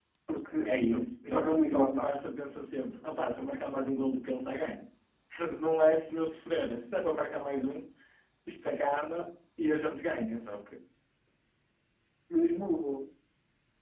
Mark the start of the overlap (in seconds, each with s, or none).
0.7 s